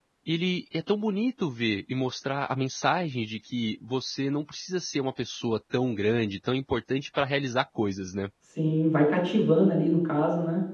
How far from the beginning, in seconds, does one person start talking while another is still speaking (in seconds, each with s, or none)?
none